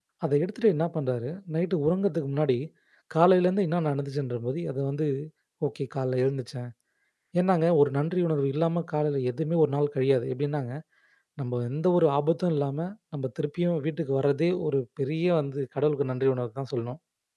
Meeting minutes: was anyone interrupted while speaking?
No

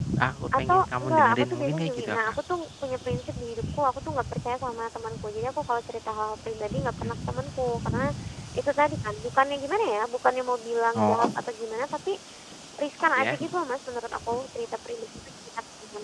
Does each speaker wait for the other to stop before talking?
No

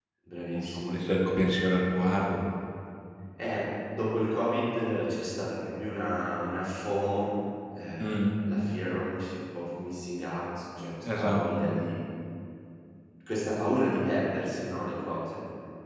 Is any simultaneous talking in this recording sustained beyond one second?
No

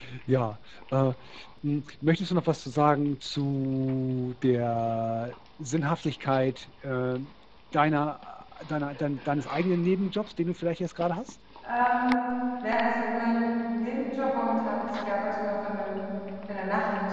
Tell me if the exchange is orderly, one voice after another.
Yes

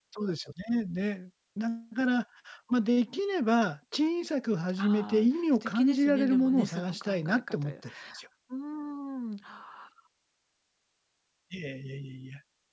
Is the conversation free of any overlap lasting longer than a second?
No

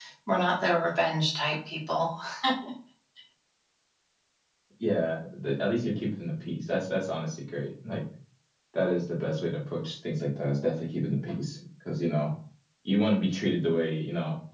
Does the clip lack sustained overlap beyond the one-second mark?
Yes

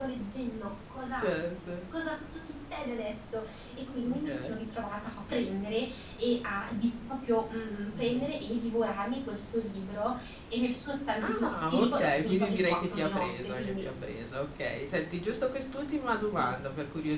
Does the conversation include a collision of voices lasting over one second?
Yes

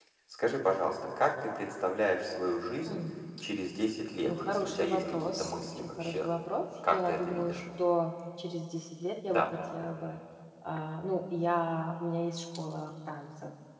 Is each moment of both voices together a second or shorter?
No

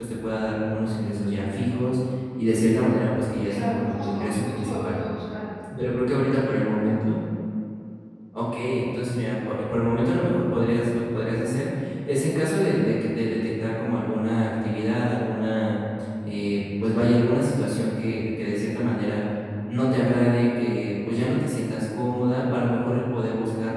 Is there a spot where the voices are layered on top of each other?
Yes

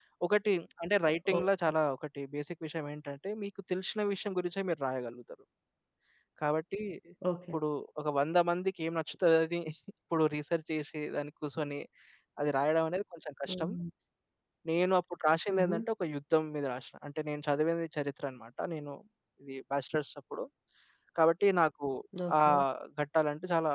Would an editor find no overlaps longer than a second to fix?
Yes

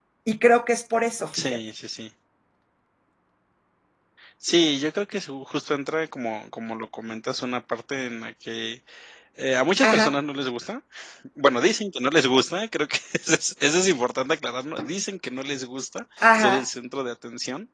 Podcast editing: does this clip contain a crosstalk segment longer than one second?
No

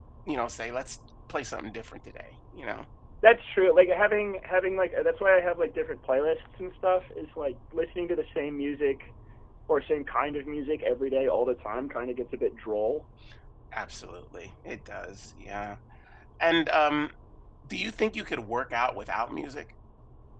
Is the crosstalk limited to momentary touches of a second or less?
Yes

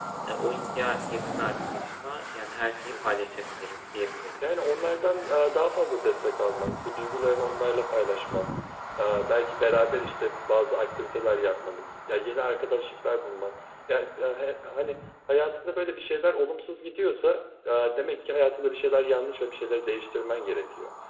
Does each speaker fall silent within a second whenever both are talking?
Yes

